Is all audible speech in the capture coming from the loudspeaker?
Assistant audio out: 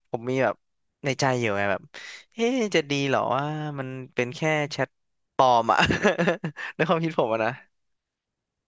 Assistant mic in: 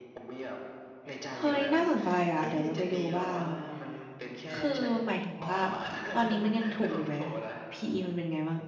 No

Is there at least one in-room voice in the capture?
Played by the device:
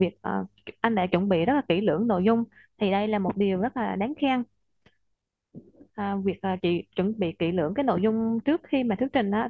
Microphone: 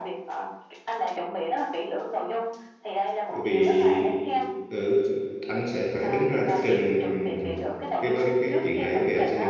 Yes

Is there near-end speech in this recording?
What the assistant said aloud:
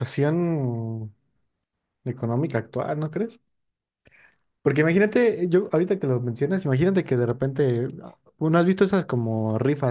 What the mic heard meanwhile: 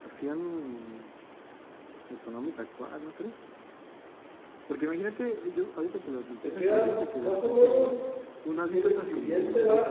Yes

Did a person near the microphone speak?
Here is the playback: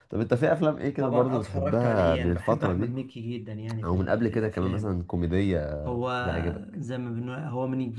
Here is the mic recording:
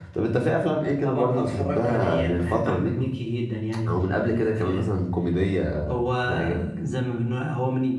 No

